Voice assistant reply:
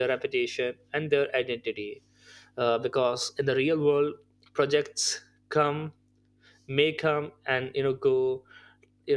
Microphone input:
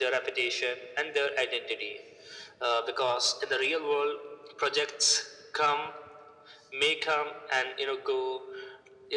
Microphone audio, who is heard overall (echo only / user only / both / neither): echo only